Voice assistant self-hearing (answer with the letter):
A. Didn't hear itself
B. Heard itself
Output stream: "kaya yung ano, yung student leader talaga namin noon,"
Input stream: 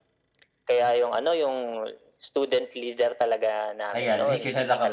B